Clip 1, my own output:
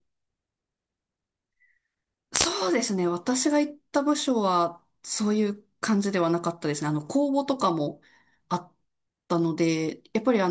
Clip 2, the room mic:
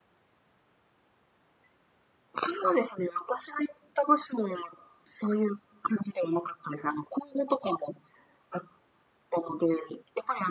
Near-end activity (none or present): none